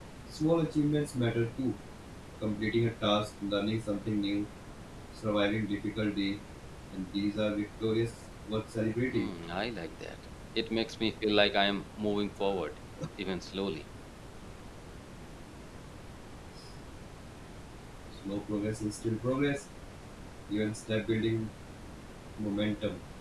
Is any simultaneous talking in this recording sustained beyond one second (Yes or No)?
No